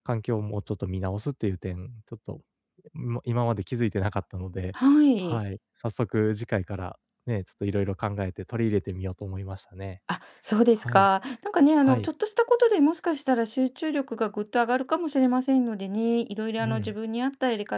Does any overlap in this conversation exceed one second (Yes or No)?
No